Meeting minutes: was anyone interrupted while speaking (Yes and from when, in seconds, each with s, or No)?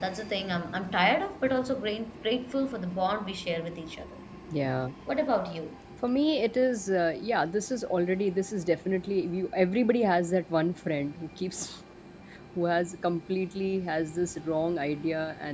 No